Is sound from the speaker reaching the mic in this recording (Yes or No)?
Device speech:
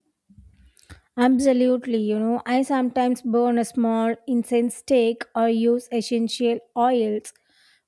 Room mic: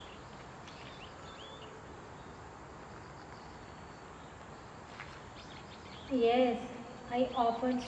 No